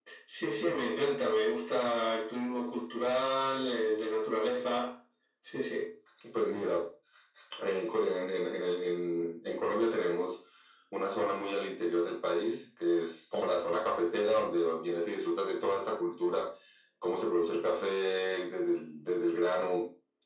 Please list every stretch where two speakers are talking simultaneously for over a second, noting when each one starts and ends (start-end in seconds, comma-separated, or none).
none